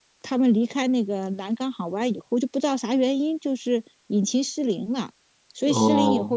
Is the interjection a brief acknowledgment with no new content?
Yes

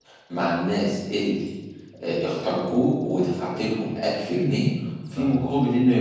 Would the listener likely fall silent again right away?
Yes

